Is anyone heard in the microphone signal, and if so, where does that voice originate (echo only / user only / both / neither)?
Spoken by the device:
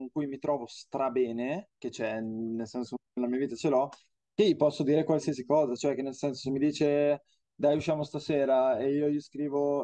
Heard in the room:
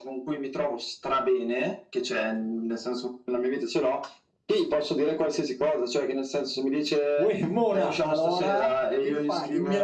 both